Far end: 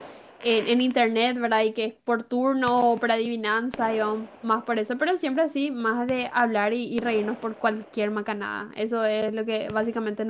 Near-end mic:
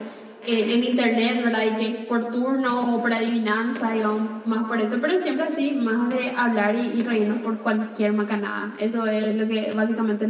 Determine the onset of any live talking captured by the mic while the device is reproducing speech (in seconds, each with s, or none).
none